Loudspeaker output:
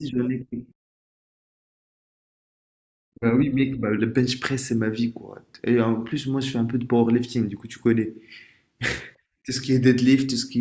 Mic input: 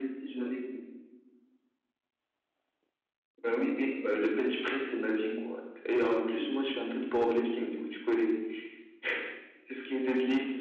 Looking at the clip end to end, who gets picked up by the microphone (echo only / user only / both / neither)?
echo only